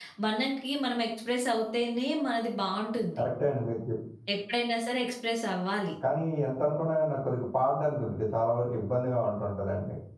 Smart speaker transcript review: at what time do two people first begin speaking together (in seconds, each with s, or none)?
none